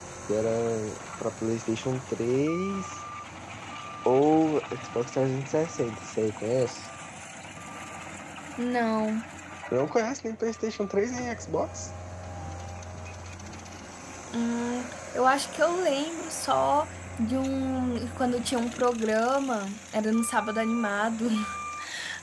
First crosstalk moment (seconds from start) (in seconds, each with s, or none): none